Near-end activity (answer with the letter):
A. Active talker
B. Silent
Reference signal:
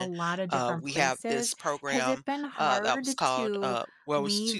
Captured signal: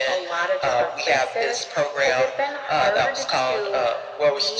B